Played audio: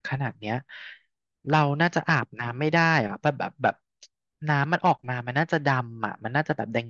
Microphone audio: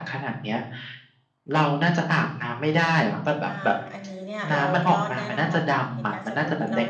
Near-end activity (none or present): present